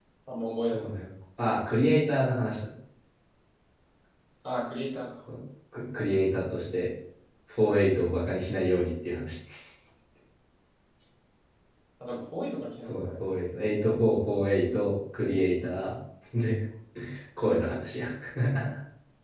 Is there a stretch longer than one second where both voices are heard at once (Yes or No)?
No